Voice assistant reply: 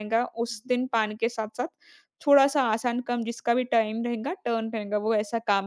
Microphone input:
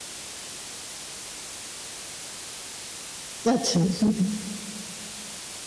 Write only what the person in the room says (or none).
अच्छा। हुँ,